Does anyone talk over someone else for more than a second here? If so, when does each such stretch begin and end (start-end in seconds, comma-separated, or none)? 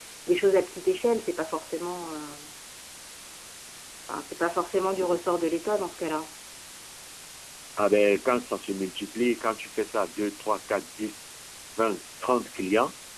none